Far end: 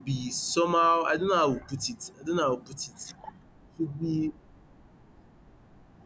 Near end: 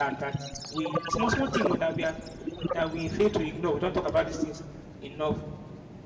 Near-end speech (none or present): present